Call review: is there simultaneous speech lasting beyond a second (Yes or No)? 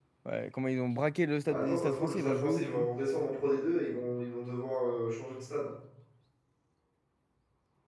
Yes